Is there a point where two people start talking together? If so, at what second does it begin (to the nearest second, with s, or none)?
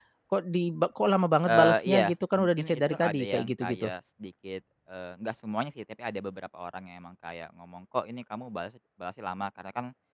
1 s